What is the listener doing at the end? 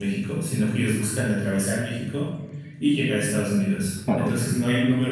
listening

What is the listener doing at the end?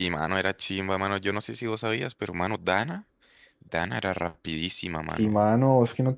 taking over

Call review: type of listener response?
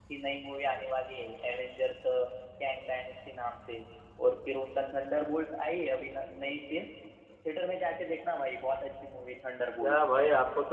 taking over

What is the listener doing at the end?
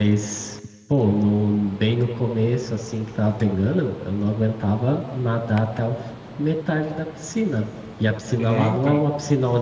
listening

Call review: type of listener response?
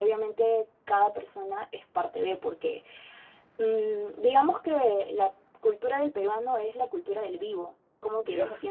listening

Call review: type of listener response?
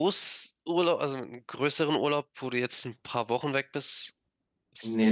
taking over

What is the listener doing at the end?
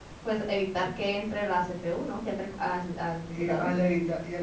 taking over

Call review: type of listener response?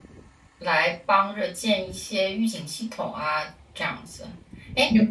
listening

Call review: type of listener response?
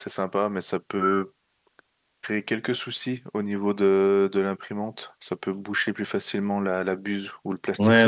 taking over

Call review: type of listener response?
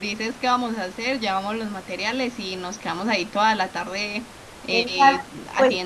taking over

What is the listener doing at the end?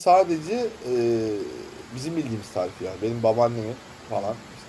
listening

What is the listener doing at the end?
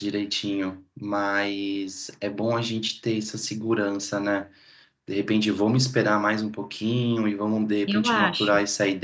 listening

